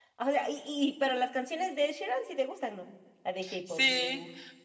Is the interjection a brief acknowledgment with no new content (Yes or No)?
No